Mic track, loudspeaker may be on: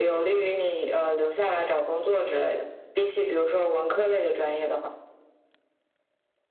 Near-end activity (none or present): none